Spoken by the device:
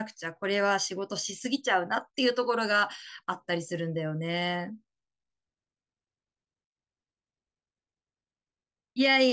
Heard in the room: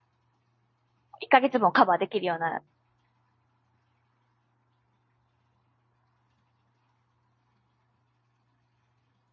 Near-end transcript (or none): 1ヶ月分をカバーできるような